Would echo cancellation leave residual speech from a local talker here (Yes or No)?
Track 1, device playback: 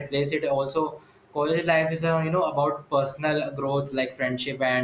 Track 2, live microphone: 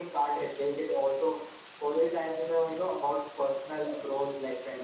No